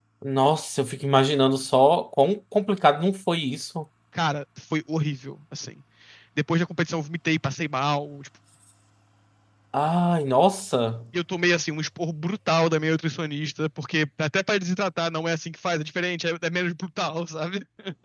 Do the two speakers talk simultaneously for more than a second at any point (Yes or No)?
No